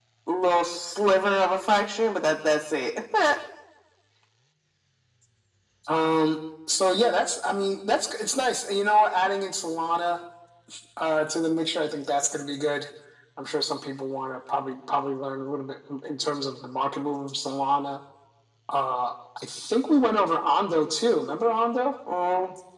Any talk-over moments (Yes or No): No